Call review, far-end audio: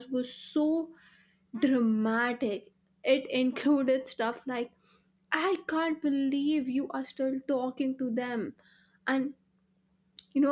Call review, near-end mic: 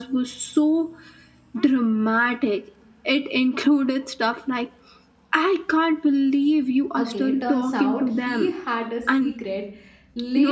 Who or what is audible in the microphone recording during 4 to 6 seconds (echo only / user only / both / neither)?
echo only